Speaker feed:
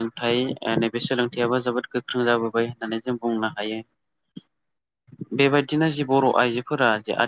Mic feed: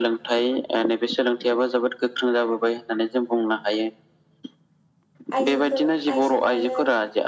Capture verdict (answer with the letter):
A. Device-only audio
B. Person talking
B